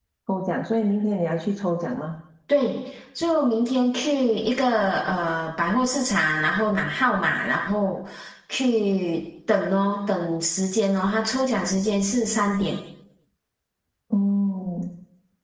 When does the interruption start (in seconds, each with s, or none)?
none